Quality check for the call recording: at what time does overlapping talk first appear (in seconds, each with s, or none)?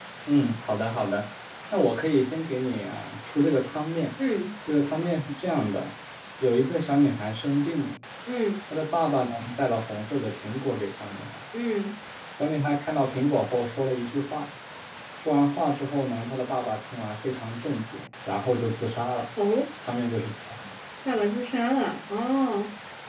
none